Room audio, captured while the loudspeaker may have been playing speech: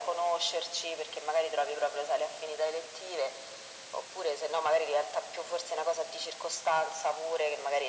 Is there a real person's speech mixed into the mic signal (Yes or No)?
No